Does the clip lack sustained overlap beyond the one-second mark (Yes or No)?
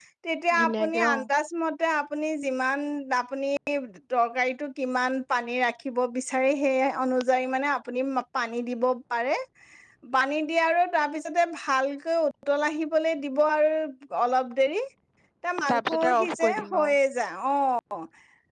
No